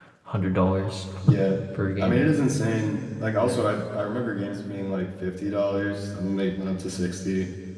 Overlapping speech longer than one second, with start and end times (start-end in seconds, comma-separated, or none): none